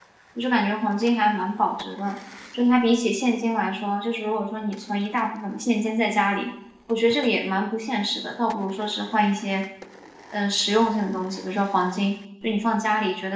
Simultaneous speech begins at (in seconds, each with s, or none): none